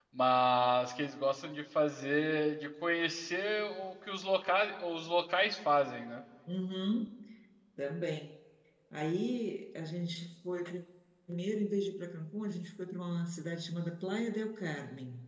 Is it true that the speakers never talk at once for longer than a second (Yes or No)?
Yes